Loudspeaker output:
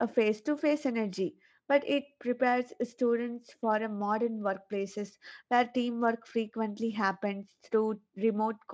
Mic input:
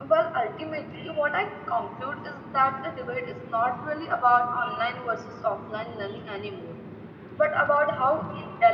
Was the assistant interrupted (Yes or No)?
Yes